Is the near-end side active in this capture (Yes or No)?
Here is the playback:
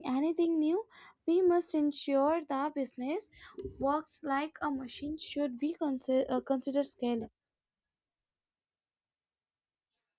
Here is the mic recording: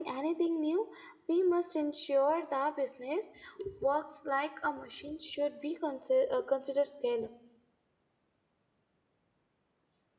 No